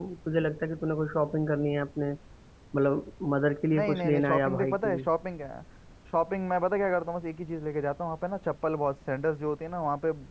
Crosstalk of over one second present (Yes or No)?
Yes